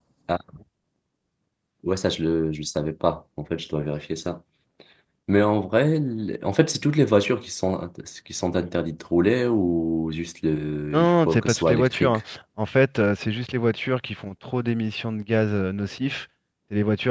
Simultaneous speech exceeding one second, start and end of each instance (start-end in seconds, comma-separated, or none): 10.9-12.2